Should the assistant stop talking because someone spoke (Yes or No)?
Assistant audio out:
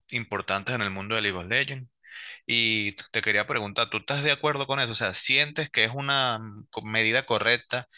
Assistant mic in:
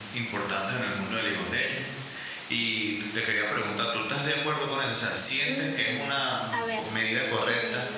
Yes